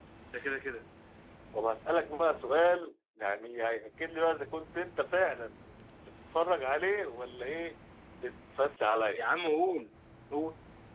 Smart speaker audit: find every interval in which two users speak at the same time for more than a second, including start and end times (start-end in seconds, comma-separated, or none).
none